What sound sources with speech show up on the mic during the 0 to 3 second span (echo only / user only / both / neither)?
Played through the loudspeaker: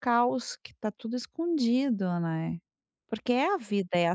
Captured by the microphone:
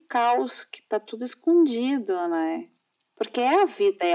echo only